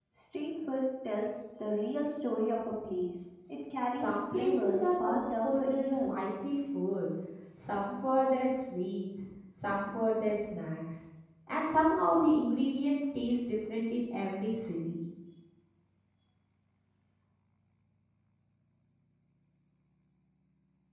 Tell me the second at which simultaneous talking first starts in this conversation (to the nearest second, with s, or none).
4 s